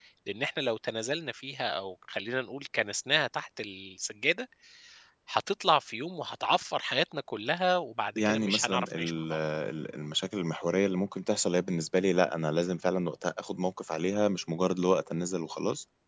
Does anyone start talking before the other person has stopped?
Yes, from 8.2 s

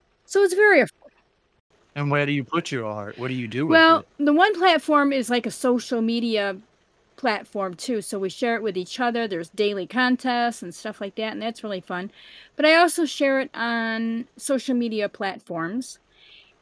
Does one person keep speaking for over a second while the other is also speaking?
No

